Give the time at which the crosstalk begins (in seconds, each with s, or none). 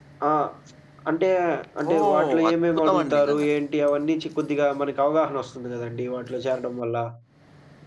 1.9 s